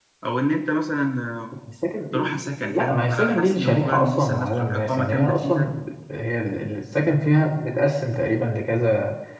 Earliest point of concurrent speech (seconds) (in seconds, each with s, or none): 2.1 s